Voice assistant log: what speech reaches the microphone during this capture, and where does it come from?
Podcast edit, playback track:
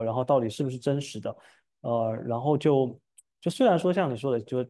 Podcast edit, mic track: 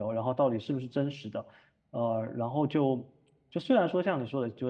echo only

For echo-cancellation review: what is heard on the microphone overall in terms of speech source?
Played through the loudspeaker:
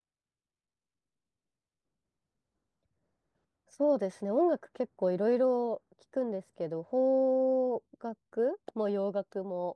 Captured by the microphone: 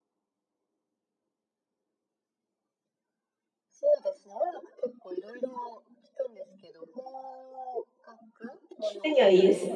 both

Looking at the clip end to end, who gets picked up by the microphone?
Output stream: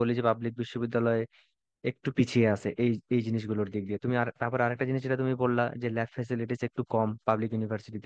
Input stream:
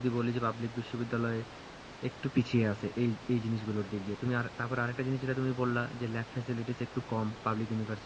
echo only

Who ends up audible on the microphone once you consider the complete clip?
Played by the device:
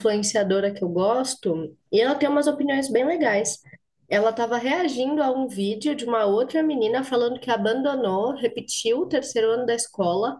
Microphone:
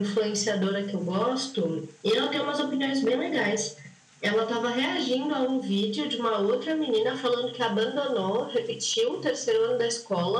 echo only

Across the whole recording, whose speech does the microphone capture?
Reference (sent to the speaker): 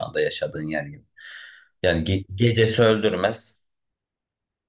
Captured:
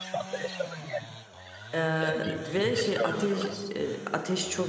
both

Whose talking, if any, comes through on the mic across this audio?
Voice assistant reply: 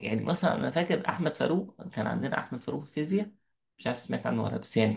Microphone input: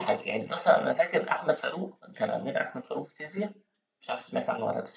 echo only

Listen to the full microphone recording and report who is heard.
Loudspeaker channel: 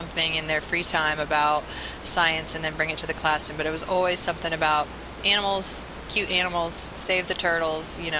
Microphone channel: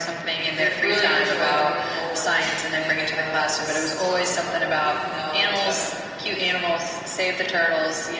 both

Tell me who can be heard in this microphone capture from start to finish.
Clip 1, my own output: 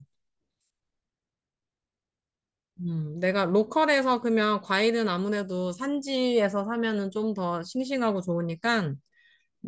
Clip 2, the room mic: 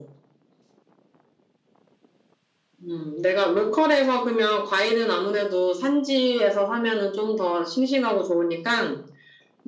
echo only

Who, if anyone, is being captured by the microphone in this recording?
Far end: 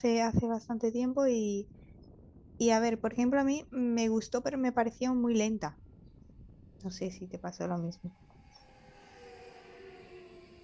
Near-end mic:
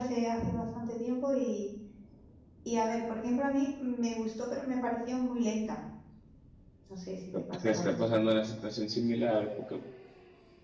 both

